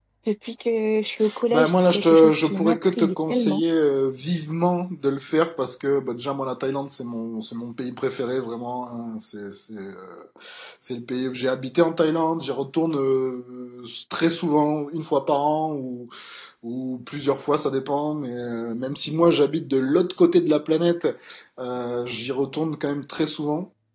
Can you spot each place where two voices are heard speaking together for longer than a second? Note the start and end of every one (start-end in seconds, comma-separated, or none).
1.5-3.6